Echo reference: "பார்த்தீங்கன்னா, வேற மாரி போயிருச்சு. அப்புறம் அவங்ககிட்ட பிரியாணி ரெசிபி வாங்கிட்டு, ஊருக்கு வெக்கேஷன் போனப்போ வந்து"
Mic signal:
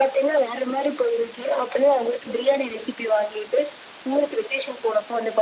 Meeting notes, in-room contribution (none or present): none